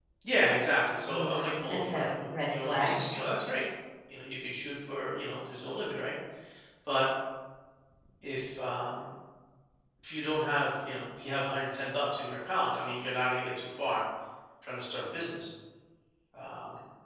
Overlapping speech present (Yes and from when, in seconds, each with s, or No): Yes, from 1.1 s